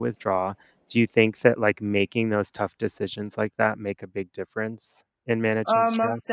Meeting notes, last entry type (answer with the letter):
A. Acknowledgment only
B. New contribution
B